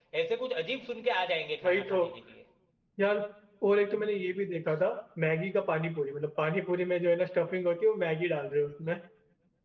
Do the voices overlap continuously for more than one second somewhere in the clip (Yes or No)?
No